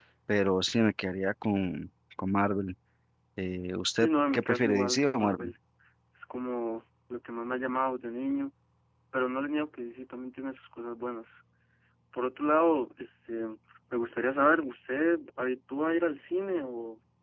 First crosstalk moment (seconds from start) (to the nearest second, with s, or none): 4 s